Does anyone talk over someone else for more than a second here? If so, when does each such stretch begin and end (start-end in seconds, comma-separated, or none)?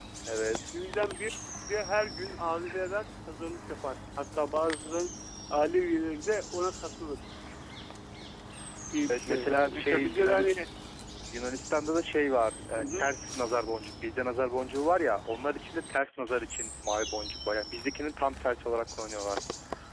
9.0-10.6